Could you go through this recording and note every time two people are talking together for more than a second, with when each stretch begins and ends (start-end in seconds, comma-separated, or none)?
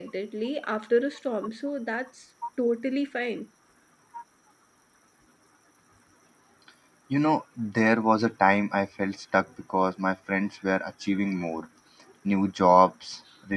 none